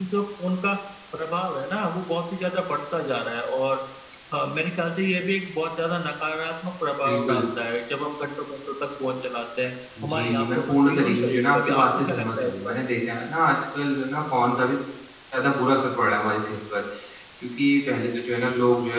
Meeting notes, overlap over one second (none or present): present